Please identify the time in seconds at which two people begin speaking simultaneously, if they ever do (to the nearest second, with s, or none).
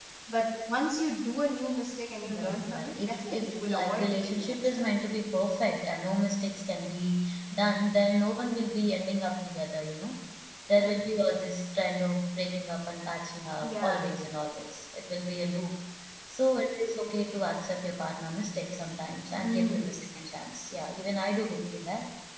2 s